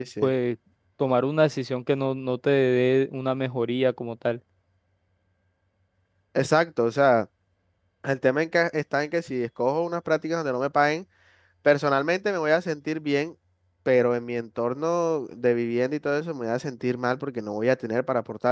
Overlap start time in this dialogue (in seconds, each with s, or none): none